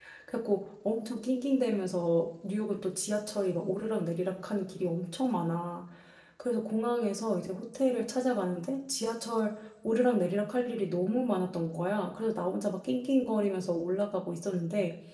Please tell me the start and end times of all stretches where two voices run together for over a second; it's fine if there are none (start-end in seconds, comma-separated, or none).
none